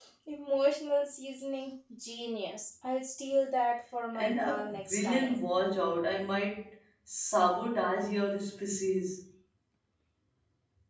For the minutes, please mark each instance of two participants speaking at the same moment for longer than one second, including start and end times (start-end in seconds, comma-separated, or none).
4.2-5.5